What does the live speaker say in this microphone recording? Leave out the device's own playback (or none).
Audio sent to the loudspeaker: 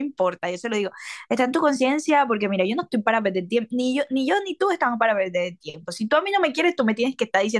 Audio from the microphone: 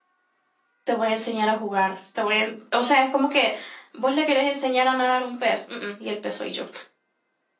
te voy a enseñar a jugar, te voy a, en- o sea, es como que vos le querés enseñar a nadar un pez, mm, mm, y el pez soy yo.